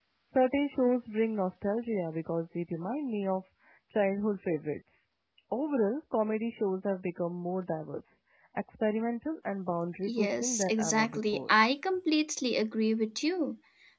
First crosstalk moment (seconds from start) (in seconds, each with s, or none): 10.1 s